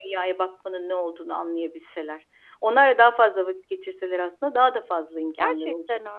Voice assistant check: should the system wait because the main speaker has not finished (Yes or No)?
No